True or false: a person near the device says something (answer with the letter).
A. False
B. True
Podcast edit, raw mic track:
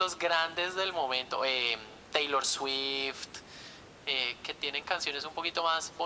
A